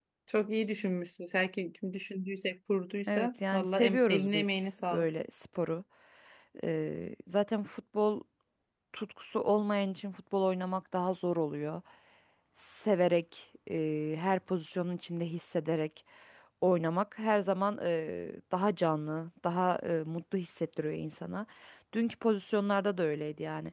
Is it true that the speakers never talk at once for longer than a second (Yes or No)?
No